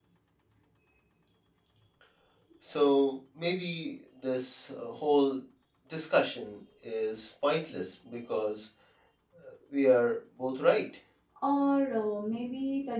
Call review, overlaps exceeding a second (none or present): none